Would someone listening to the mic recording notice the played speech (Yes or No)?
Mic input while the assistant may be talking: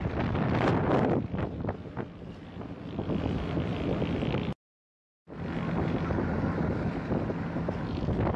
No